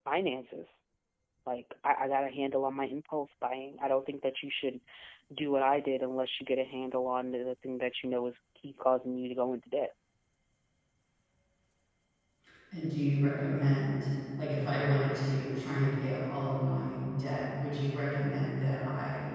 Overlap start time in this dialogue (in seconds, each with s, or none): none